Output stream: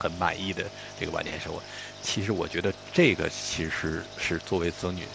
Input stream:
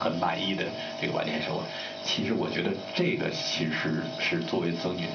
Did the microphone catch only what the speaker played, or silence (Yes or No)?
Yes